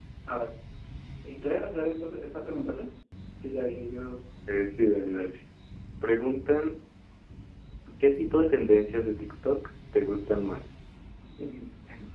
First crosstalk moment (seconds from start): none

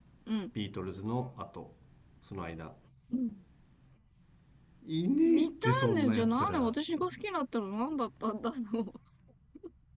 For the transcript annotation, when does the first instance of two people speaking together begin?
5 s

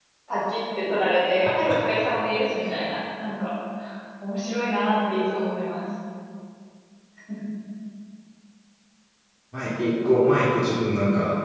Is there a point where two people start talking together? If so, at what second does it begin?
none

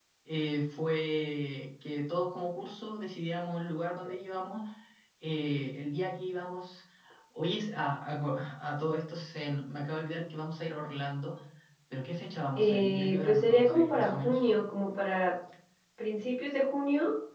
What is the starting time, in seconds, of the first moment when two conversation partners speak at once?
13 s

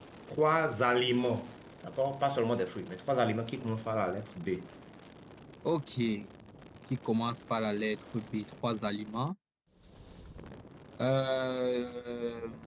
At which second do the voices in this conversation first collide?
none

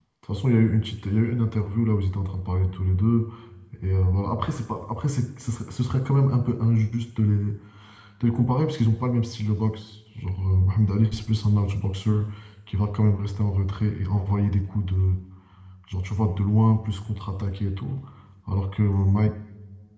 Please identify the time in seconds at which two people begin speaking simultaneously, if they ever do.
none

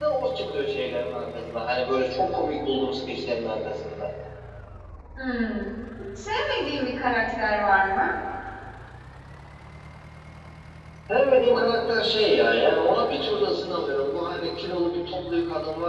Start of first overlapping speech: none

